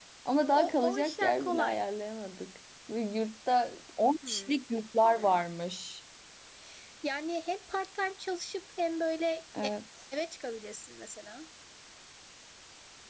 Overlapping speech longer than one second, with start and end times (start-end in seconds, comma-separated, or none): 0.5-1.9